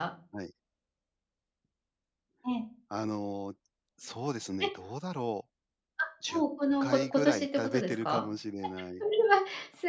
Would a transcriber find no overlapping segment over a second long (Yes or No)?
No